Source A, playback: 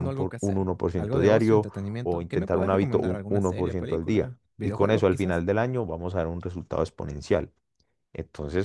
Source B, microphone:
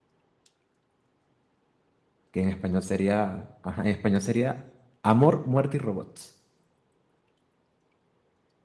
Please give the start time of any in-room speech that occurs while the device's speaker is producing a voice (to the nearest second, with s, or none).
2 s